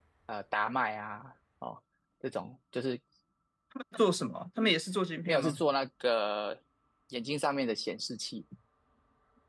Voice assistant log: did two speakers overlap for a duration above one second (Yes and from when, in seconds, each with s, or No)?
No